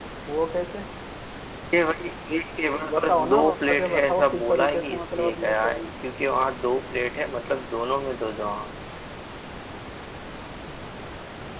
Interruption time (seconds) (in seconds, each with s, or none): 2.8 s